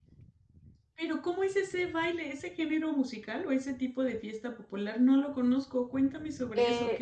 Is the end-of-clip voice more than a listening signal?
Yes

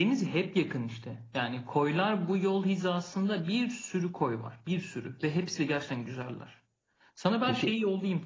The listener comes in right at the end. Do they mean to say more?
No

